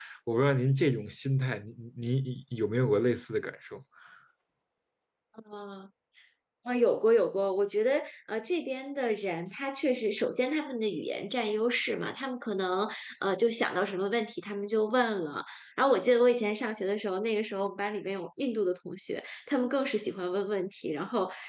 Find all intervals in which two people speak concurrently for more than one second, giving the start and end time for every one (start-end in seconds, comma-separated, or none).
none